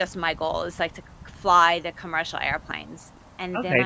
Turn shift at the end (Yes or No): Yes